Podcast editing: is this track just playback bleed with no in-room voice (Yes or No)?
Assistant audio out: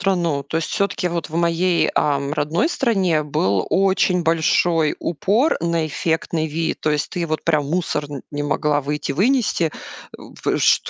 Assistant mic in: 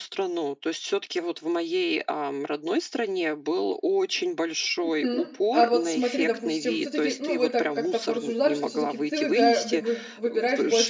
No